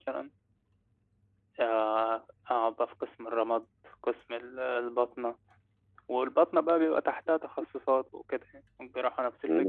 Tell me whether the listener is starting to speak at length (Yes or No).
Yes